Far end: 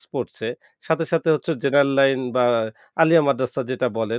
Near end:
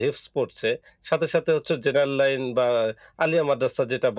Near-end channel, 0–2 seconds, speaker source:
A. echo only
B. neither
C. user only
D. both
A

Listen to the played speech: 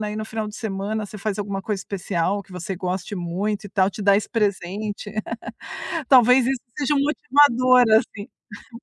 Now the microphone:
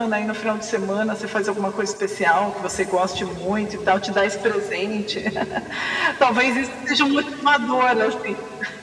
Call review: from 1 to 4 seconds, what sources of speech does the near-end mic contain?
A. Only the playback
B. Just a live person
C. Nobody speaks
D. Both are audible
A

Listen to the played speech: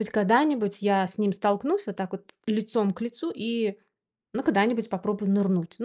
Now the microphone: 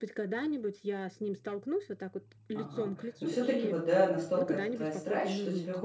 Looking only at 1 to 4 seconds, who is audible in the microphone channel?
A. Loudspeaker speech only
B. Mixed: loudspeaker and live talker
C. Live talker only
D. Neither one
B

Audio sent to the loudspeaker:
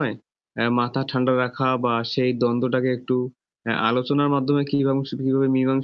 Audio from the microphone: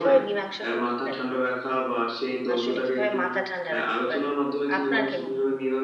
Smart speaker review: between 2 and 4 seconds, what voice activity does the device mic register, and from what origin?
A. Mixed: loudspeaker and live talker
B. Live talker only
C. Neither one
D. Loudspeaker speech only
A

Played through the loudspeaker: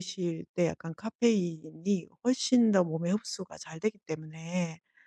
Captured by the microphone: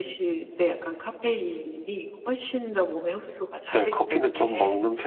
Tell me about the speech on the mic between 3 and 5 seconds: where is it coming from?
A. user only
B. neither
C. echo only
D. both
D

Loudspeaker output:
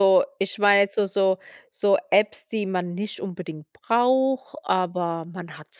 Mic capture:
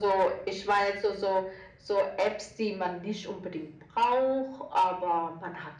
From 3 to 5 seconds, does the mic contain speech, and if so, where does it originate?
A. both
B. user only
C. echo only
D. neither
C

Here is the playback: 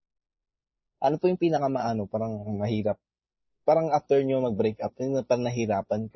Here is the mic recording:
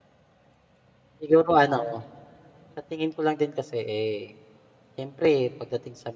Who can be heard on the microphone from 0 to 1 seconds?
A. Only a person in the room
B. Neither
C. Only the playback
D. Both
B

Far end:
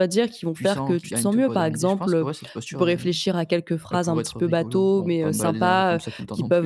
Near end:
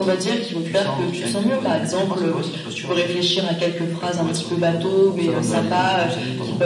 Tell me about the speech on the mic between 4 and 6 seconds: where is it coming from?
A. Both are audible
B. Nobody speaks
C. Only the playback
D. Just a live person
A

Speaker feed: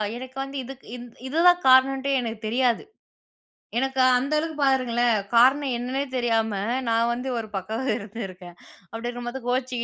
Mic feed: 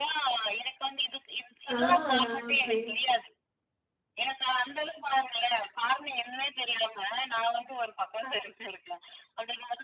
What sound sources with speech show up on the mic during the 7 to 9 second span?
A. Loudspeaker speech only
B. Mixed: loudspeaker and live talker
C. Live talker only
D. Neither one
A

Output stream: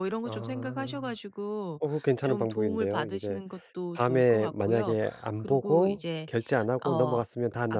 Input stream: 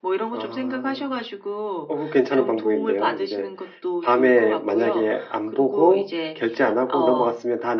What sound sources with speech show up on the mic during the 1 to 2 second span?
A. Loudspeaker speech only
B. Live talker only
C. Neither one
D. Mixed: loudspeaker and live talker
A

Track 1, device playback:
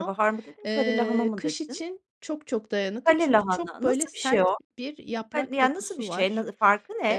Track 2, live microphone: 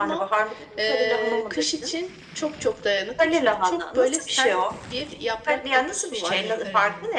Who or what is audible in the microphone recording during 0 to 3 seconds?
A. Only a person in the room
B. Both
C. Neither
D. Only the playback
D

